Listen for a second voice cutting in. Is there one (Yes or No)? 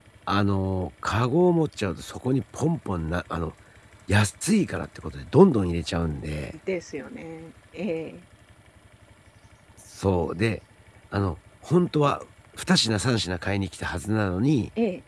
No